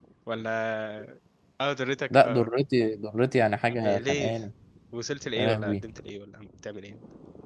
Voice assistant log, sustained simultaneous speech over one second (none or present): none